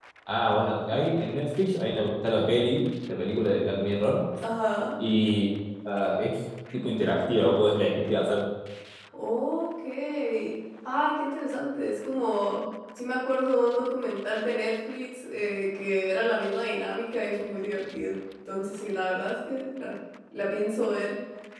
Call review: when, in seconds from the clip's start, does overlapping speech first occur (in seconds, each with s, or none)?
none